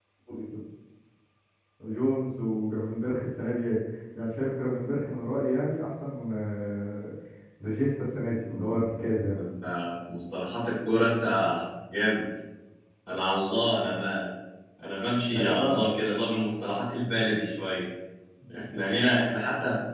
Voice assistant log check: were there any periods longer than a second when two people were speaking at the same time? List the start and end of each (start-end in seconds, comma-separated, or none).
none